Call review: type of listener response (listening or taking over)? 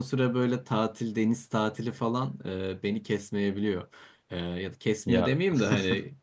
listening